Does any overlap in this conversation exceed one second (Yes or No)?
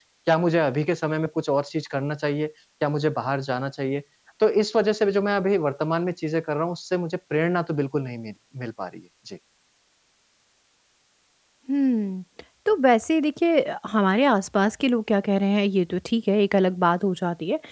No